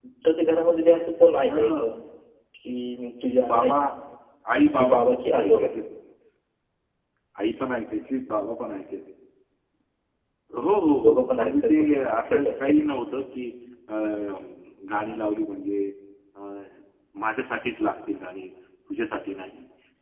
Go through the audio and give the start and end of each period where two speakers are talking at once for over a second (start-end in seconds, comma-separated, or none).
11.0-12.7